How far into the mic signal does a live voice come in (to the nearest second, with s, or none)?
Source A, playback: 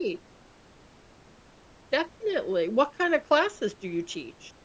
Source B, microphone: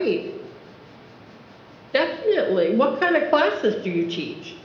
none